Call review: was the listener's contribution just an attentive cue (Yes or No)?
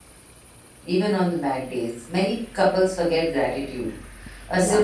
Yes